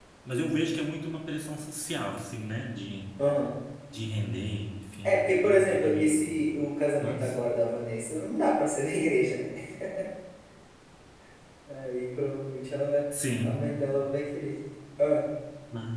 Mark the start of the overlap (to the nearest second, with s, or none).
5 s